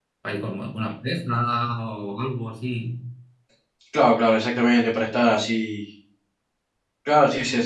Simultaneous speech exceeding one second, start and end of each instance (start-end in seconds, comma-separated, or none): none